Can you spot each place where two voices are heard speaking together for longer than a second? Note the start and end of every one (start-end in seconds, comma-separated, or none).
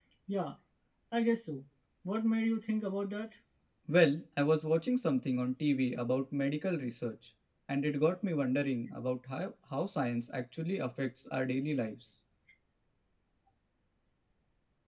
none